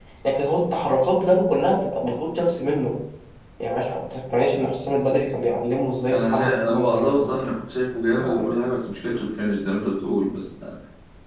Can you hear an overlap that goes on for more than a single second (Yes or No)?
Yes